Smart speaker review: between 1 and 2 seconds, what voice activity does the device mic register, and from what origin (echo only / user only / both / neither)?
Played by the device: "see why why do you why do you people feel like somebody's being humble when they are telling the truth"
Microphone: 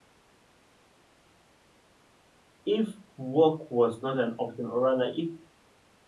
neither